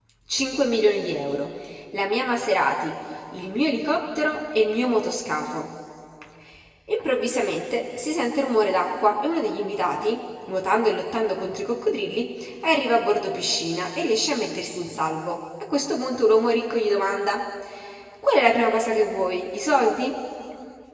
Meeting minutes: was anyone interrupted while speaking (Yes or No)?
No